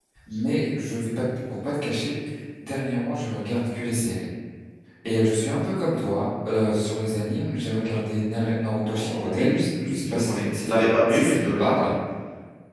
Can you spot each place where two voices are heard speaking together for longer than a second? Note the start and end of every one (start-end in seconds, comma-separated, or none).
8.9-11.9